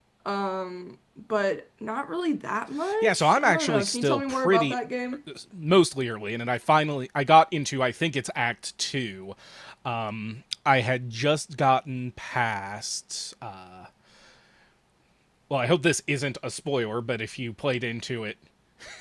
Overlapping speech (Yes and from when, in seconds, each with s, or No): Yes, from 2.8 s